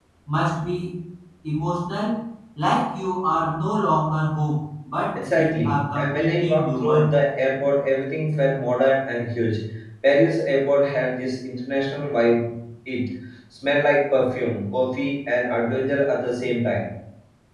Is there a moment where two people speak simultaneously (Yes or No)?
Yes